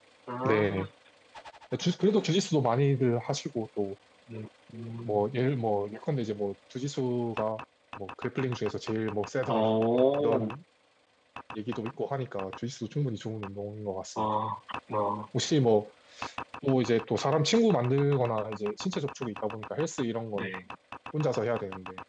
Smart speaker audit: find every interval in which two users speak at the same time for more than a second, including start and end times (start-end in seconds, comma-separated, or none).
none